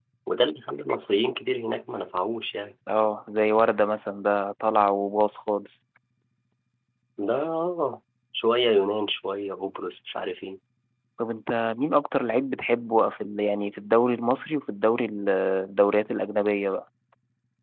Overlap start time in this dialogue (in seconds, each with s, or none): none